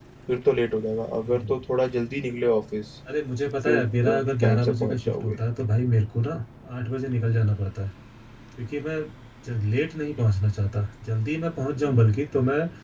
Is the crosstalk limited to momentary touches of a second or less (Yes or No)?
No